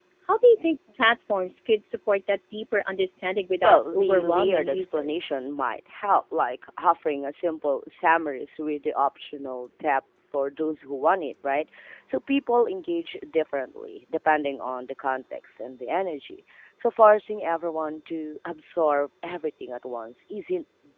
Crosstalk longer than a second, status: present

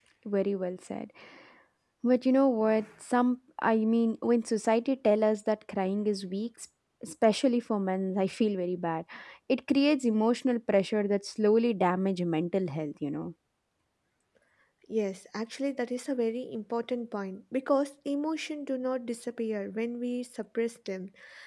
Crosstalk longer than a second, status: none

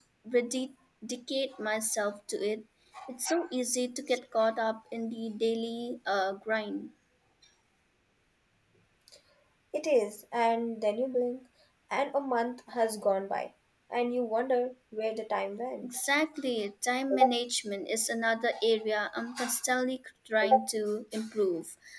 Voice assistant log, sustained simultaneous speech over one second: none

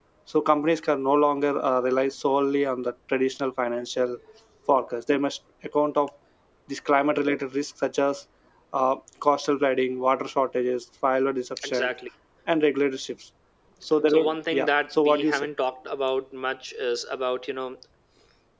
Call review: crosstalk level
present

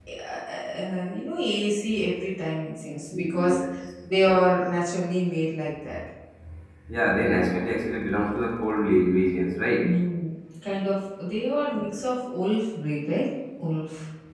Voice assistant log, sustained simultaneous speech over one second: none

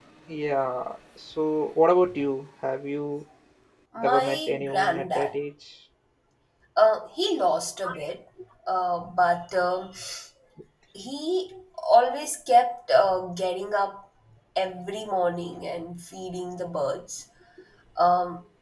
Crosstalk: present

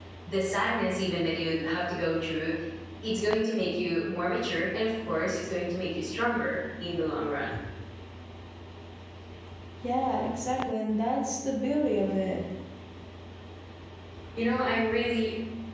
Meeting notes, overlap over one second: none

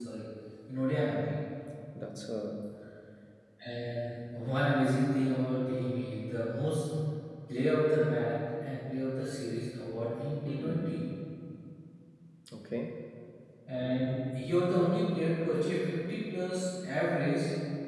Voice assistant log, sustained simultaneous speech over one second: none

